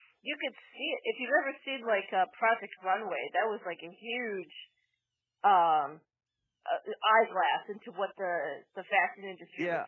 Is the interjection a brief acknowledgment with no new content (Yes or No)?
No